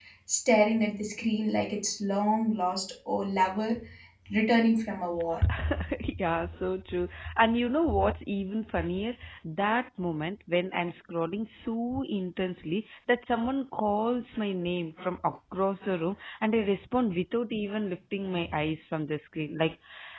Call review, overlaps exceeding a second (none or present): none